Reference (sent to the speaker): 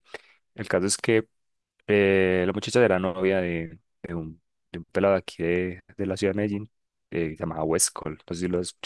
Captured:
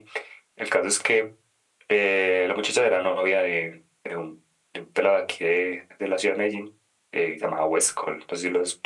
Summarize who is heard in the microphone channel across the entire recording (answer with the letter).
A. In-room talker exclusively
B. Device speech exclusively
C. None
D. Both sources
B